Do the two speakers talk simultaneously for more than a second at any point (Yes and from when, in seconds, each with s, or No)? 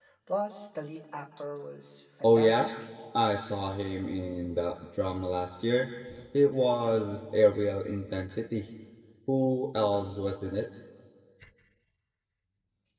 No